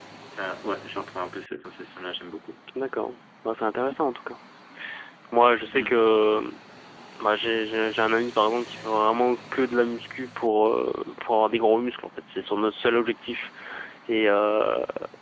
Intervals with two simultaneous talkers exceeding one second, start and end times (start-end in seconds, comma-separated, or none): none